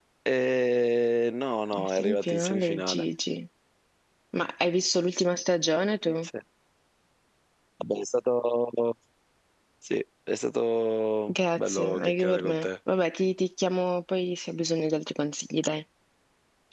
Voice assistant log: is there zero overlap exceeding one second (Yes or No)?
No